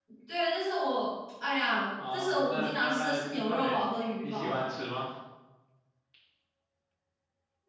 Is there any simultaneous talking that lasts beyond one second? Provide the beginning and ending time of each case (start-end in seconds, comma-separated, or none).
2.1-3.8